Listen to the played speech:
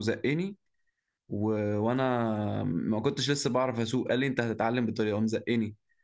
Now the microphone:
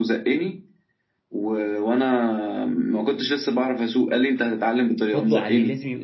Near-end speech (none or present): present